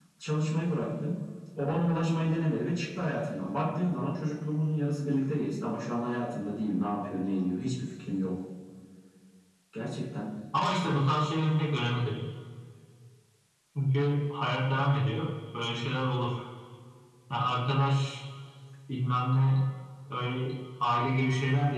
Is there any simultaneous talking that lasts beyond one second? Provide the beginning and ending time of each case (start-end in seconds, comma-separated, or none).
none